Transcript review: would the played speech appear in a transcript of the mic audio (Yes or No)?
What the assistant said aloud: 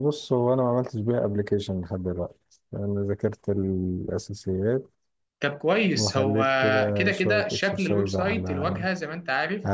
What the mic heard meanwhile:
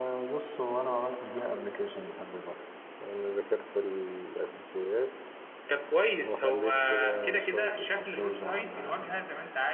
Yes